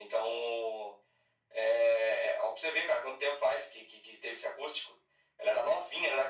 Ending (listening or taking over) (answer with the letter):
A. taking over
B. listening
B